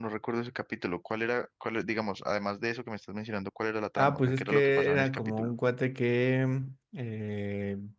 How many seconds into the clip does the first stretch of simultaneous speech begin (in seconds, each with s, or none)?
4.0 s